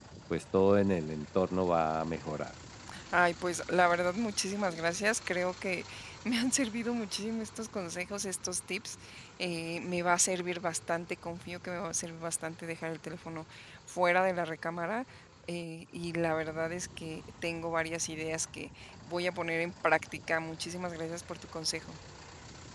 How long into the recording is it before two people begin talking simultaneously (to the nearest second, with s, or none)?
none